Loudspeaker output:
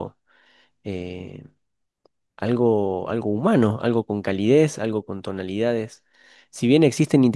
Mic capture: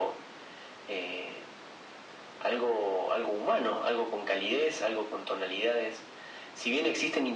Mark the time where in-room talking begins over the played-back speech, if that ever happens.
none

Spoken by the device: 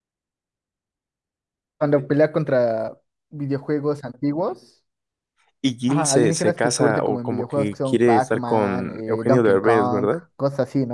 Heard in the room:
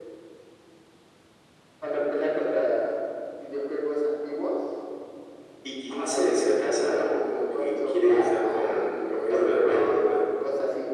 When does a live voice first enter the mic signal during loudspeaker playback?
none

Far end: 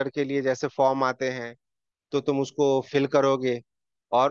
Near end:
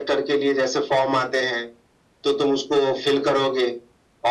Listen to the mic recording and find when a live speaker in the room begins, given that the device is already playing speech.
none

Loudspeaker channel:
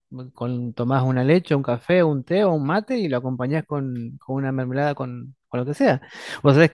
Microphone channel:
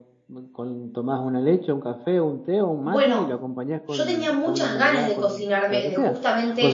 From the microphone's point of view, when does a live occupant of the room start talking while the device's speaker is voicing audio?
2.8 s

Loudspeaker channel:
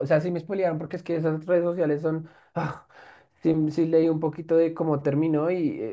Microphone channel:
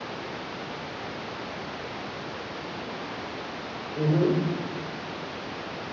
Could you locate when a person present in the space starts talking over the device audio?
3.9 s

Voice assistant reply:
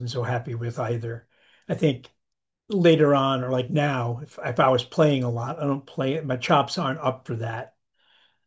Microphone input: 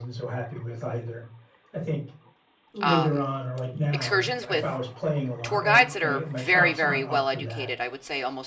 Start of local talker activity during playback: 2.8 s

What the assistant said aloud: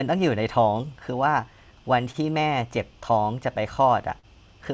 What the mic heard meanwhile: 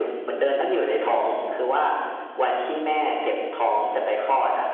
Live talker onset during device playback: none

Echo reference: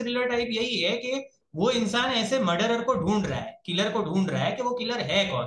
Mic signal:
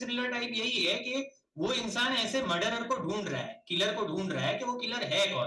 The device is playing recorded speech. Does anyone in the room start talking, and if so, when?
none

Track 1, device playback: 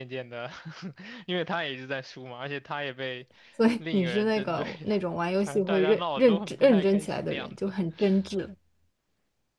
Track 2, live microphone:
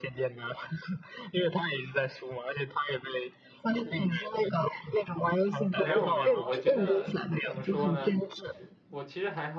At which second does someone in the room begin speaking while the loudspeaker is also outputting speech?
5.8 s

